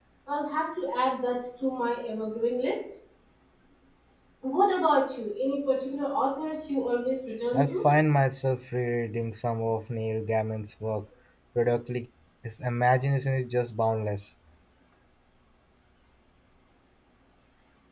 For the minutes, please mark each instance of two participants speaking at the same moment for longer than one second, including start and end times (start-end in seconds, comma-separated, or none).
none